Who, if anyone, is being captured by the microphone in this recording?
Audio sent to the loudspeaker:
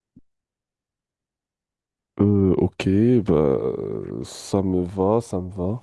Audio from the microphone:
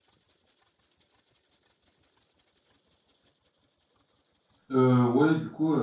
user only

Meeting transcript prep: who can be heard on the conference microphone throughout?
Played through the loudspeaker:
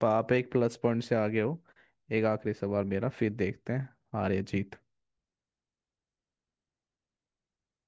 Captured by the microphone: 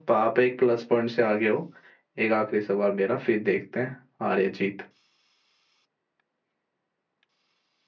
echo only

